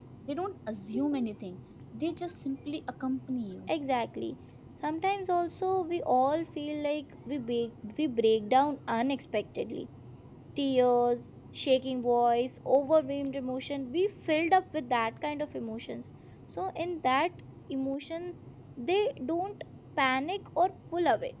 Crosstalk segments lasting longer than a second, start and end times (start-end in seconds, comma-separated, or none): none